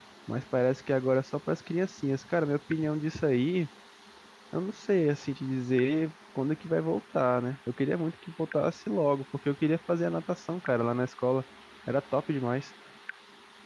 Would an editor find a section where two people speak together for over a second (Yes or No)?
No